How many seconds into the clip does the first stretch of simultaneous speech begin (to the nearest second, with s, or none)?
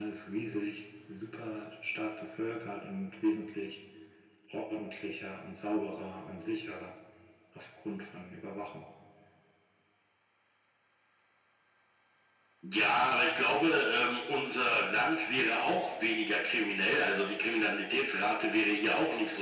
none